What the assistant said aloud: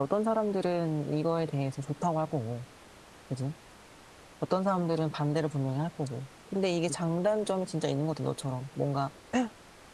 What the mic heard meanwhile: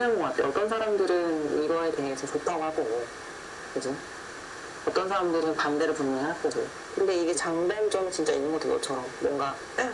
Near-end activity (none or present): none